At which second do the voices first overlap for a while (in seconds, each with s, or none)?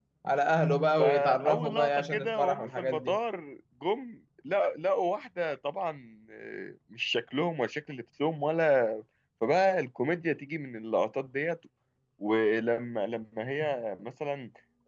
1.0 s